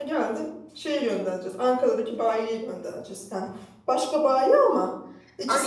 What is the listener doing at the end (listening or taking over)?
taking over